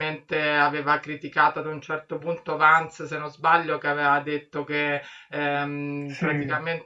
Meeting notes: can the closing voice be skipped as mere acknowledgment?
Yes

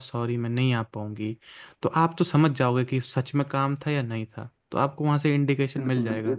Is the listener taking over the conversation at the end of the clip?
Yes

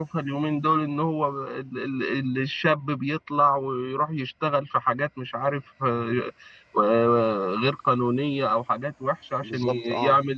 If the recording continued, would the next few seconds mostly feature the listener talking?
No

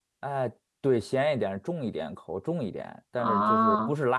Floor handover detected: No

